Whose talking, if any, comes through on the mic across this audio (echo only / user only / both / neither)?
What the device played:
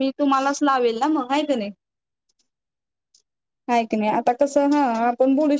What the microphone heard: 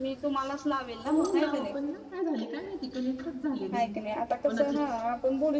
both